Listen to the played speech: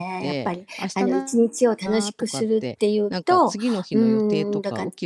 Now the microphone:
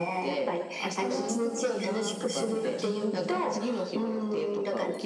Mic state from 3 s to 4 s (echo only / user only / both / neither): both